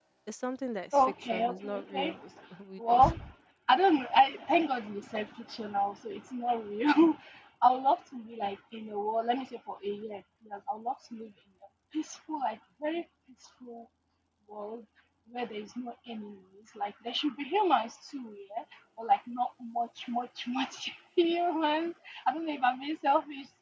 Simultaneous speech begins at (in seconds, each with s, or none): 0.9 s